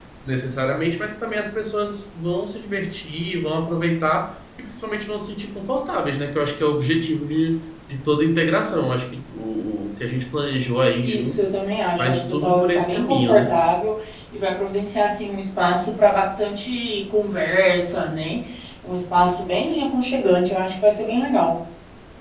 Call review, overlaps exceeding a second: present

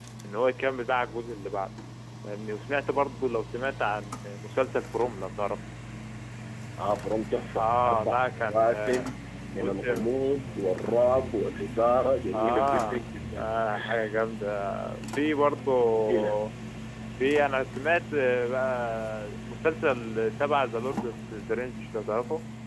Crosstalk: present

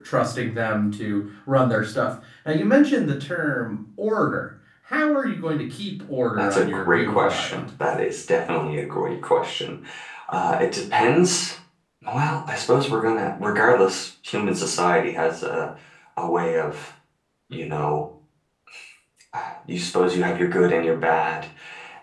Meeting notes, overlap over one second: present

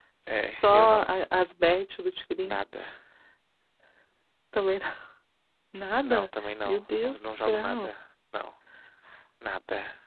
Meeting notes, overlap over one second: present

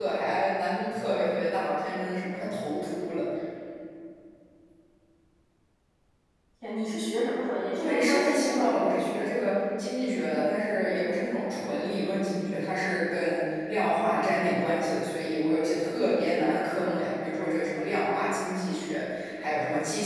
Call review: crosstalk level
present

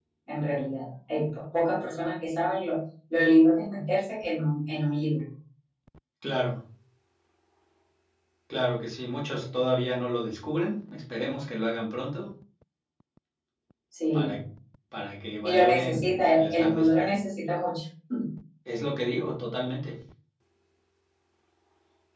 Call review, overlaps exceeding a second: present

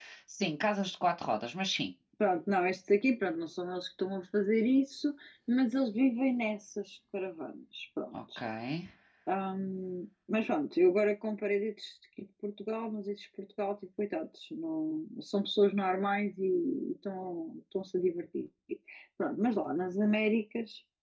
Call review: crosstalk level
none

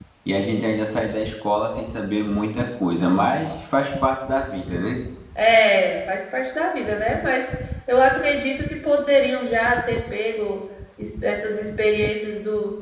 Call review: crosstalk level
none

